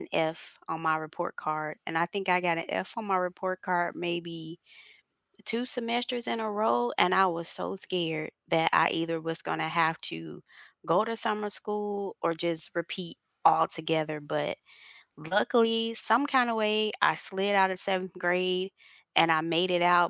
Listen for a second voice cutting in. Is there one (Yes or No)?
No